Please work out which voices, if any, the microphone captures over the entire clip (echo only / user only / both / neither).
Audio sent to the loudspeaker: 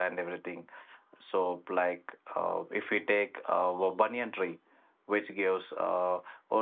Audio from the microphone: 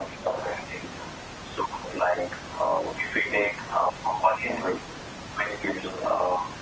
echo only